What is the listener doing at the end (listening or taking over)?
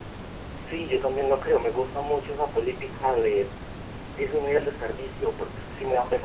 listening